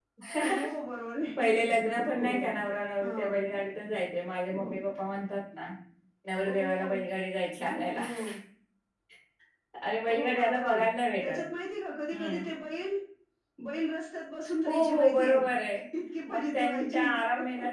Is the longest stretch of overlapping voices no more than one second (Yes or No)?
No